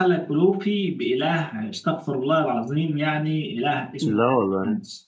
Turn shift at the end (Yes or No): No